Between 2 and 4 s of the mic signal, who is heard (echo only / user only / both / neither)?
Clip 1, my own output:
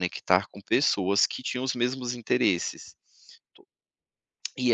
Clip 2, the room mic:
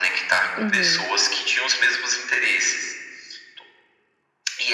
echo only